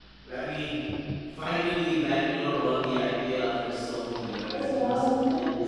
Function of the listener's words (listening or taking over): taking over